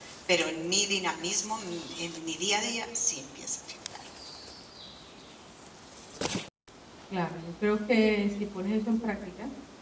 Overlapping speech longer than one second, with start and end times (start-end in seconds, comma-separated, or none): none